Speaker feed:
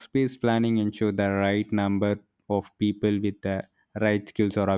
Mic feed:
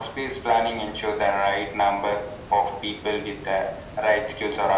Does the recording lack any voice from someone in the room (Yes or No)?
Yes